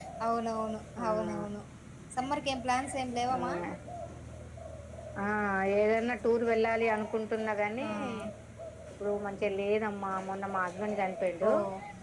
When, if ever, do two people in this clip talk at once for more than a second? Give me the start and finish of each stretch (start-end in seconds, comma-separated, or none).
none